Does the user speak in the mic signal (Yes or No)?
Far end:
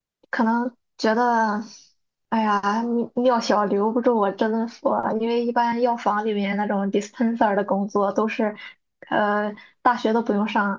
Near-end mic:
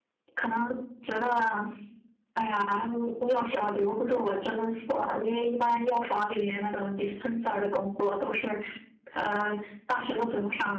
No